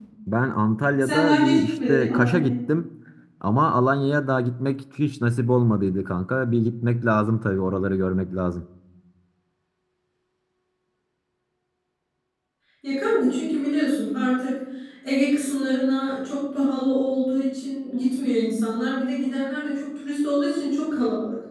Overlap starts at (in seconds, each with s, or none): 1.0 s